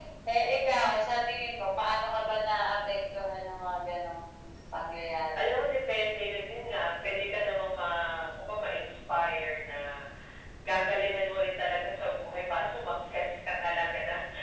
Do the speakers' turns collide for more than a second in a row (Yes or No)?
No